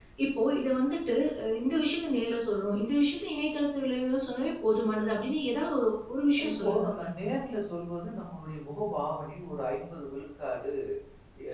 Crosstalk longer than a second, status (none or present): none